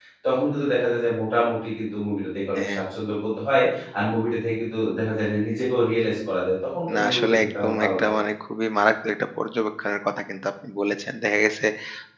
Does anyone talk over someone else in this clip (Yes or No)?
Yes